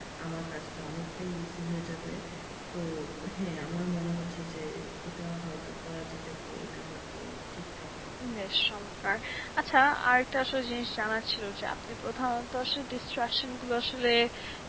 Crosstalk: none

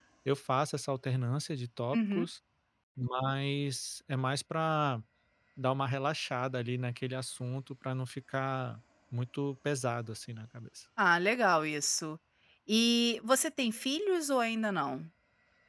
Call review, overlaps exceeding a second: none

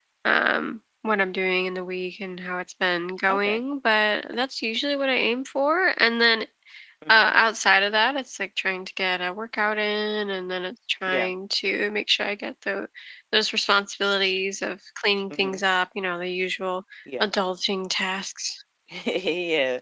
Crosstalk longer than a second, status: none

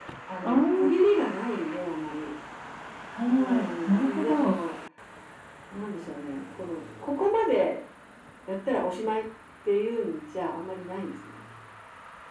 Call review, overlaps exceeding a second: present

